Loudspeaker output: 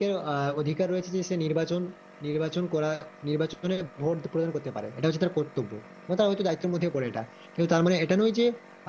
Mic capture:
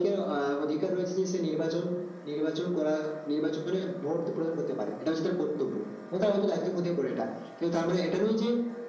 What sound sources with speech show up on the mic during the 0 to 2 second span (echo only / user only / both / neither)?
echo only